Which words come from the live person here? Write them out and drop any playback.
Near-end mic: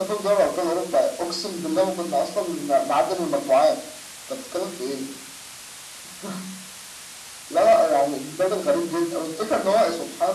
none

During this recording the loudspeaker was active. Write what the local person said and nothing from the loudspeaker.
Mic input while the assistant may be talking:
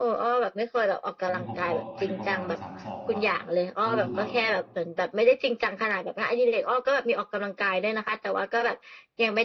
ตอนนี้ผมก็อายุประมาณสามสองละก็รู้สึกว่า

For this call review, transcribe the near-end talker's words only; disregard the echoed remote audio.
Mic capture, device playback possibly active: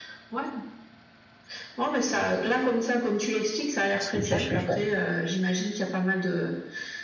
Je comprends, je comprends.

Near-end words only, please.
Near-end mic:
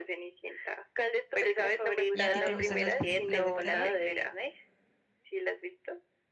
¿Y a ti te gustan las películas de terror?

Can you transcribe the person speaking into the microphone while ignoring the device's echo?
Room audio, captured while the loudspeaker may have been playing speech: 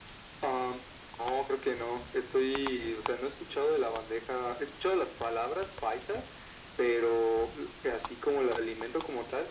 none

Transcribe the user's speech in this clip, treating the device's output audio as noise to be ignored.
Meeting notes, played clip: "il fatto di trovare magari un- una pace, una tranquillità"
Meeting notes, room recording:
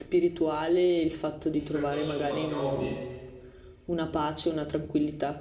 un percorso in un qualche hobby,

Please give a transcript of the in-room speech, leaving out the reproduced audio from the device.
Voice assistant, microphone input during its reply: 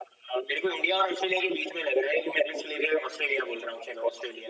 none

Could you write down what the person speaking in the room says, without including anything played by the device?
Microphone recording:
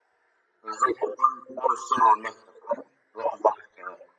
none

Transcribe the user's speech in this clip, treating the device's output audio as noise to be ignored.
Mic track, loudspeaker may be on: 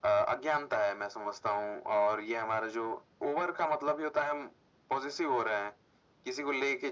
none

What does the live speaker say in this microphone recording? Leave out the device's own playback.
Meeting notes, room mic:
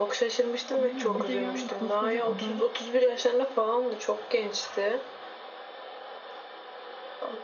Aynen. Bir de yani koskoca adam

